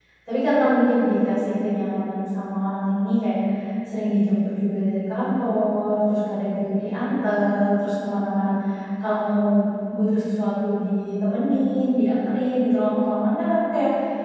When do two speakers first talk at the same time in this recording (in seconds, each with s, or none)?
none